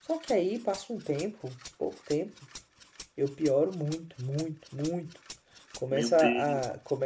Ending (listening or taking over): listening